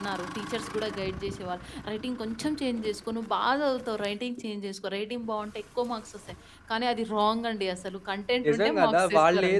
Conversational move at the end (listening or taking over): taking over